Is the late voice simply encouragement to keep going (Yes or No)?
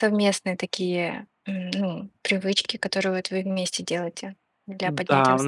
No